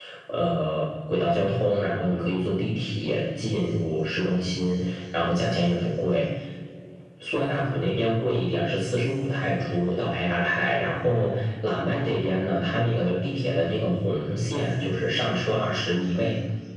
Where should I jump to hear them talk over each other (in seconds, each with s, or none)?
none